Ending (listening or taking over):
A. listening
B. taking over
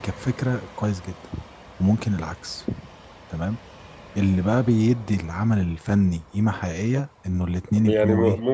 B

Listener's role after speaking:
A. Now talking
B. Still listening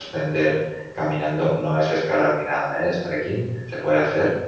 B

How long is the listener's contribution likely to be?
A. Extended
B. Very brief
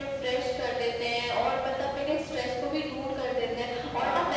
B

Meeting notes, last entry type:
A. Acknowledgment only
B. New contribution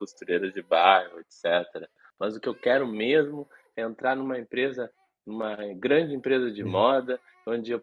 A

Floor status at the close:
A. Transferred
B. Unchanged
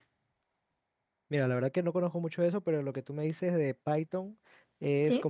B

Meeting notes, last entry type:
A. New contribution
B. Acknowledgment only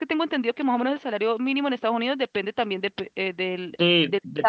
A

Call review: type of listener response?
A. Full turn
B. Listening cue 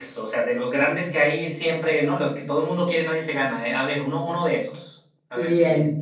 A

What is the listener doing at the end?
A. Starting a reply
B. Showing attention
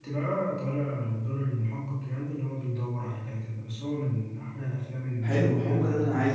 A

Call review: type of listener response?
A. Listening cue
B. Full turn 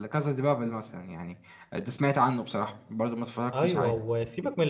B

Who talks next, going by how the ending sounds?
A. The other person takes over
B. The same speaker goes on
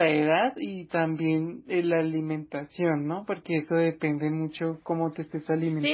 A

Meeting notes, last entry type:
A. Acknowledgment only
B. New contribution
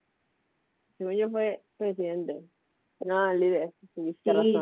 B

